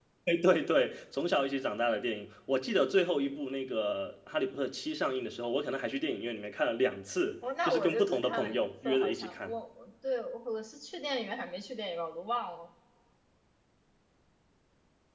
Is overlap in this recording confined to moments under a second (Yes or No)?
No